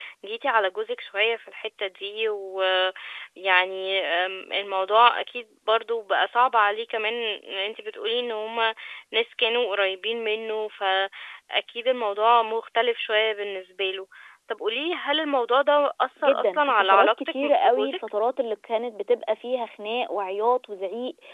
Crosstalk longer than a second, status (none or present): present